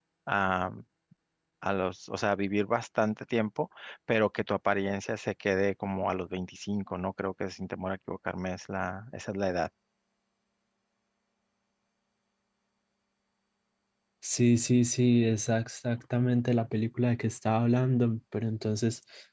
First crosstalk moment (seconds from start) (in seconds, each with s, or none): none